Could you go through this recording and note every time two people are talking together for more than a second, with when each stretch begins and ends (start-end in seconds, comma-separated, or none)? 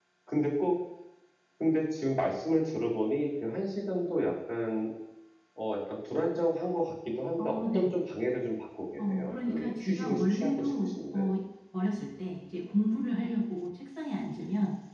9.0-11.3